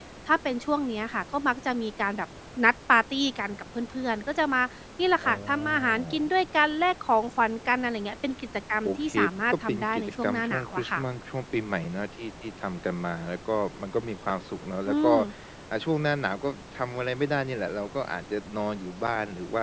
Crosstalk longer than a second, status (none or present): present